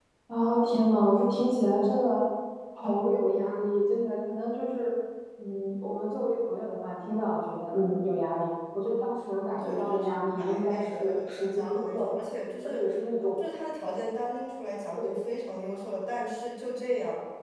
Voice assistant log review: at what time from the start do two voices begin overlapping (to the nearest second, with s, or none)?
10 s